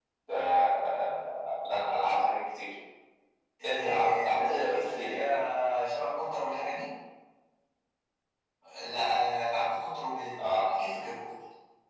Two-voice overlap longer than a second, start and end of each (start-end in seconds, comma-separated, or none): 3.6-5.4